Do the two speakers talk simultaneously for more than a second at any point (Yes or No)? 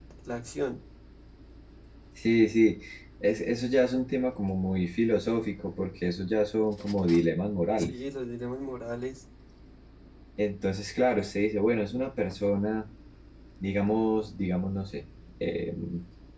No